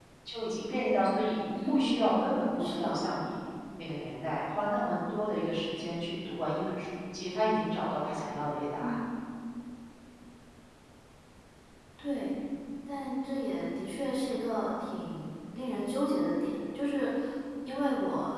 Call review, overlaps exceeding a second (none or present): present